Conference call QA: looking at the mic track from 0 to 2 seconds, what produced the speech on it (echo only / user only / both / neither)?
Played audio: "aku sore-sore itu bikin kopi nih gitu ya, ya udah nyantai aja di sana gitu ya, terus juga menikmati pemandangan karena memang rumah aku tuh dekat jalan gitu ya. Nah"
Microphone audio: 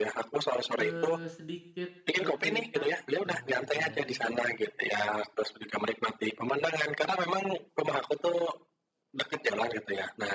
both